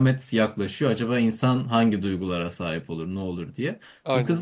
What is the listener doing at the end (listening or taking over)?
listening